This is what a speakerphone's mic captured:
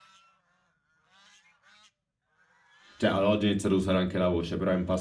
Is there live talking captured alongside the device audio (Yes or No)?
Yes